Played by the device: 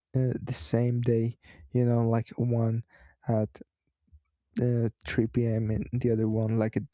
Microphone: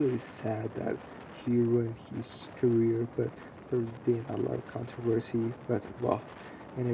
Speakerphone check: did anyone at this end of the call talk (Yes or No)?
Yes